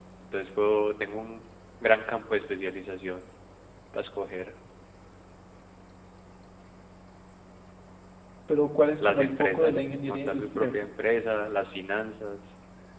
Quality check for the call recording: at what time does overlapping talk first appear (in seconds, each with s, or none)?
9.0 s